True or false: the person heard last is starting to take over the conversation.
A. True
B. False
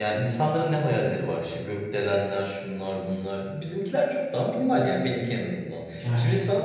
B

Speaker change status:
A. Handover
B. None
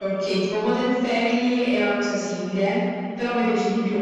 B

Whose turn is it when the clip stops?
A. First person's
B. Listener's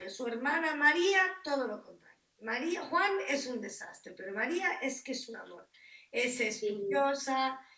A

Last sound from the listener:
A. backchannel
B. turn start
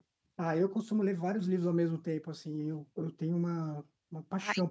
A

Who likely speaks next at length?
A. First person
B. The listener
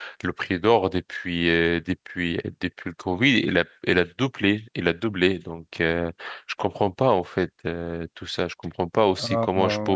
A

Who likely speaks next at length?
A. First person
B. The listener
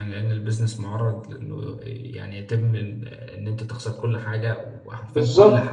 B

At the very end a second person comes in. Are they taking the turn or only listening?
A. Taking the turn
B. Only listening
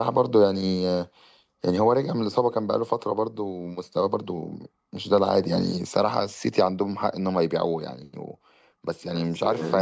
B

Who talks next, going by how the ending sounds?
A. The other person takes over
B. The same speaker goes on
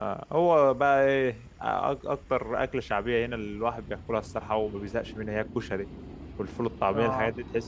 B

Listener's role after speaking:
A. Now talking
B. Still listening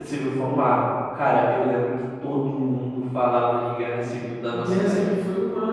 A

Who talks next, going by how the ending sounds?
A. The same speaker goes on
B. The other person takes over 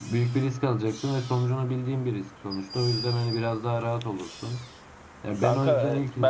B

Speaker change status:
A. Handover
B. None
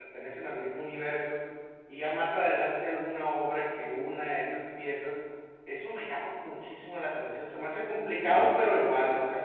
B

